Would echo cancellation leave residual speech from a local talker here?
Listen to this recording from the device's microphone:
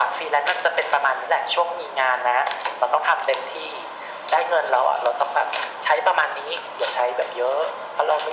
No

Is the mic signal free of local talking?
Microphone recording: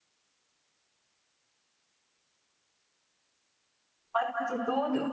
No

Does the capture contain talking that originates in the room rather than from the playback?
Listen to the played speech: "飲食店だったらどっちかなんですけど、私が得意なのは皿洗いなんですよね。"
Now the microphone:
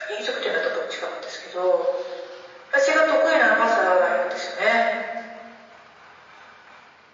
No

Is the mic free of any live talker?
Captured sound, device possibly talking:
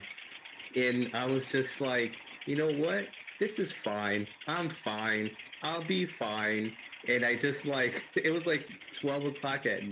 Yes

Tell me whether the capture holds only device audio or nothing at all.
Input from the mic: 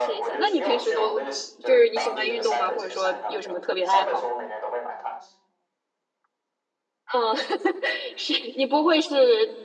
No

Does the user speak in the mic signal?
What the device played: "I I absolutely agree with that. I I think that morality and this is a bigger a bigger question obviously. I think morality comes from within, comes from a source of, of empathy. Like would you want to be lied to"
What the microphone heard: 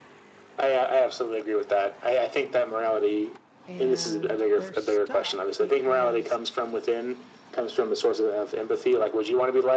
Yes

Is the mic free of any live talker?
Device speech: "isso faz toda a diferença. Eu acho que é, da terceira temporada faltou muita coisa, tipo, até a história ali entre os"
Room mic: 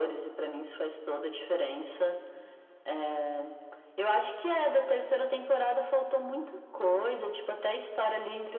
Yes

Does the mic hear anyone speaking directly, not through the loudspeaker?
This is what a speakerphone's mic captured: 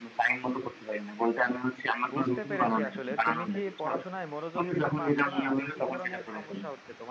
Yes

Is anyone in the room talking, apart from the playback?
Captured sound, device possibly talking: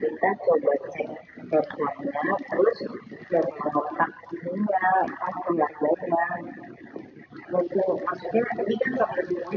No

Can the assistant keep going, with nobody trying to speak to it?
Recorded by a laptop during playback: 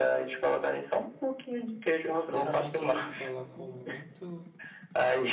No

